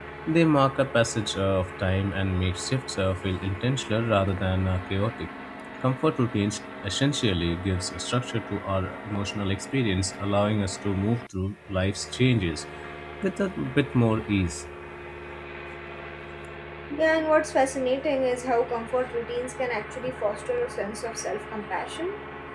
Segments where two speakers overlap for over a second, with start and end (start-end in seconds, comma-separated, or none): none